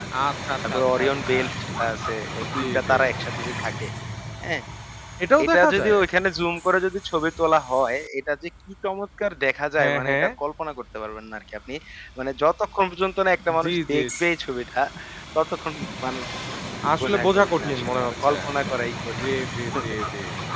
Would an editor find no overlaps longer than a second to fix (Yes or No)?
No